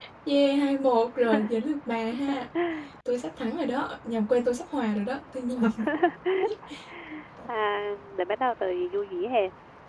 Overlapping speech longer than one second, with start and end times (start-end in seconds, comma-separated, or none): none